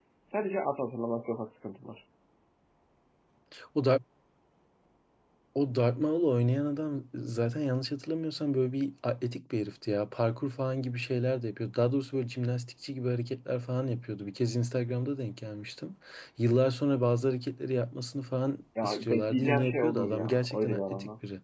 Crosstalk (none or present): present